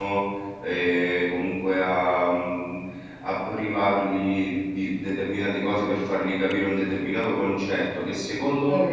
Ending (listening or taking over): listening